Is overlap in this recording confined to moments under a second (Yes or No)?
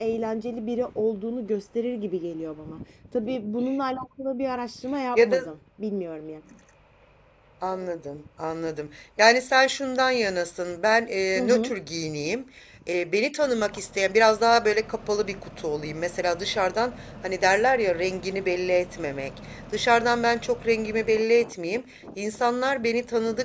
Yes